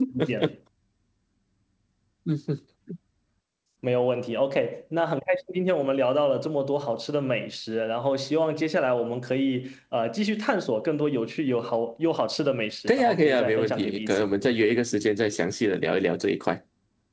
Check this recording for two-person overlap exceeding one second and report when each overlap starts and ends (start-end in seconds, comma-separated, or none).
12.9-14.3